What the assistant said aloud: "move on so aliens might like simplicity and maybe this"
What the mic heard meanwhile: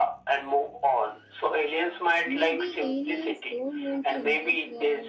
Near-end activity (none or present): present